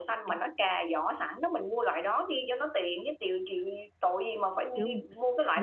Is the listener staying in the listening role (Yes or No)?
No